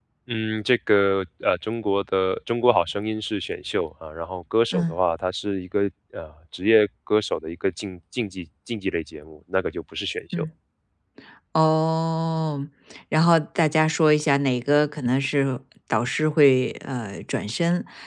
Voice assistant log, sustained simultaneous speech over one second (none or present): none